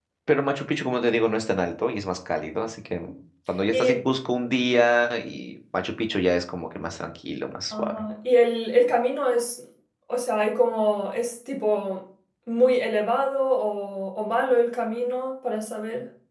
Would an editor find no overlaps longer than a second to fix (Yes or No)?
Yes